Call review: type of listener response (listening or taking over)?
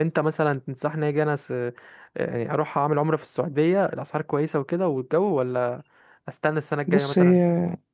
taking over